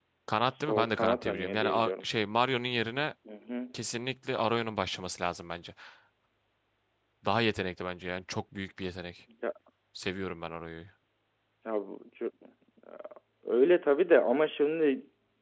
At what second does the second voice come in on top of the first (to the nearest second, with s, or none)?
1 s